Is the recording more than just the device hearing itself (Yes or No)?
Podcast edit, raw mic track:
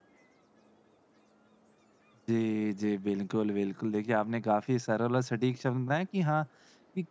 Yes